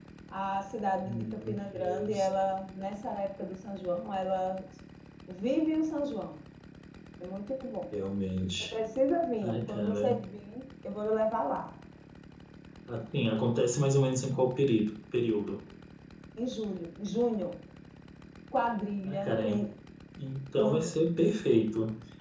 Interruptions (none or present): present